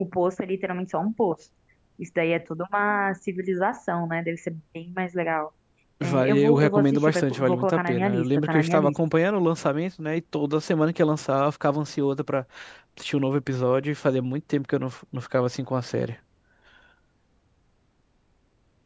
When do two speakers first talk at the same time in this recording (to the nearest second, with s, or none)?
6 s